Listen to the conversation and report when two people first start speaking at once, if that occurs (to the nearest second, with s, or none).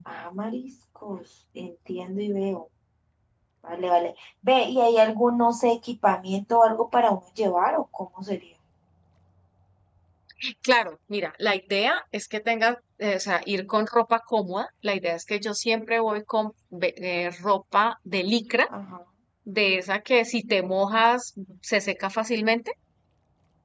none